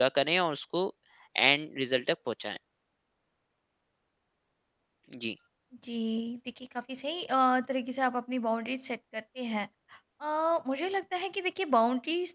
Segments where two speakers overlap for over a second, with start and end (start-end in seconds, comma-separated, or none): none